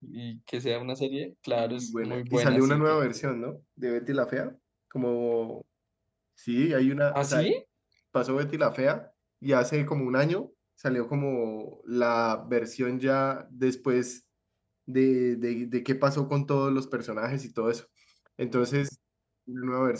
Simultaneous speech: Yes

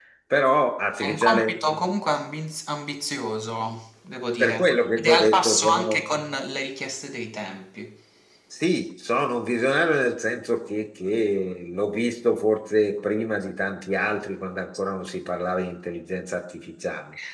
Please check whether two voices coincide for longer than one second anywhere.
Yes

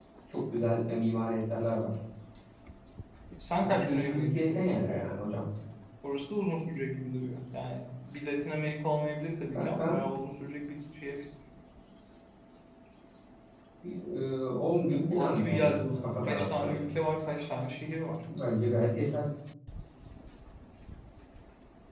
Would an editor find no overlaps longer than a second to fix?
No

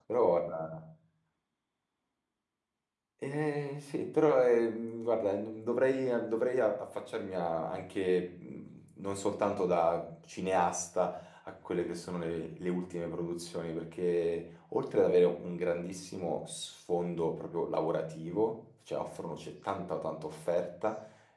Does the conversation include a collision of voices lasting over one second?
No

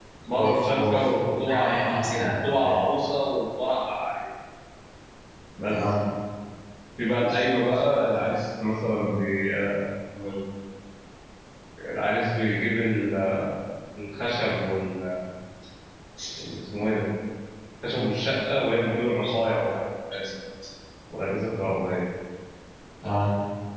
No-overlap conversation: No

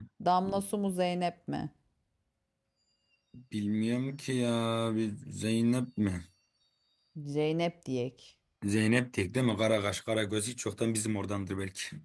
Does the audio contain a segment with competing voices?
No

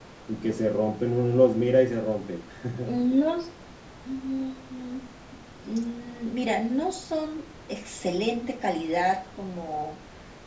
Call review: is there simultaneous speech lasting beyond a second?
No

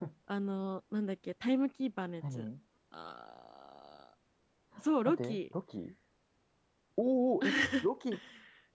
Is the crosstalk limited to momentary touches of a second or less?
Yes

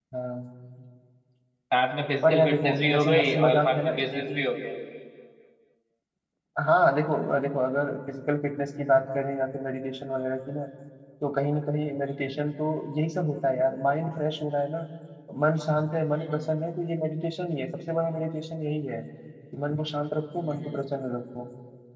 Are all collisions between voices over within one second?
No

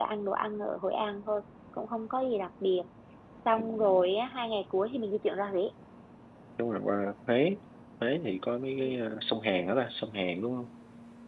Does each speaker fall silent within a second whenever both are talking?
Yes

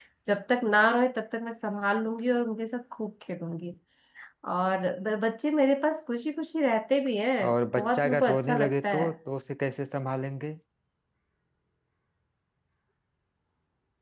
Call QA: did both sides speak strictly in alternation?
No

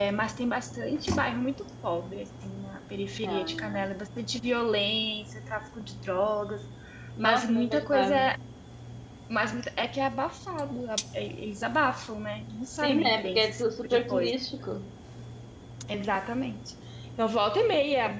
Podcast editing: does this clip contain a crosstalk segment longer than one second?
Yes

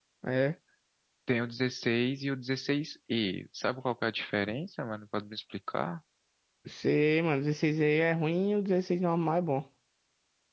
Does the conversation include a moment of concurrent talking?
No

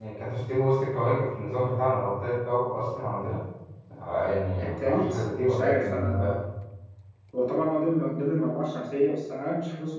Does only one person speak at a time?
No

